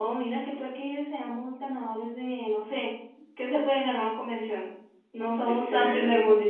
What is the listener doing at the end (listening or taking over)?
listening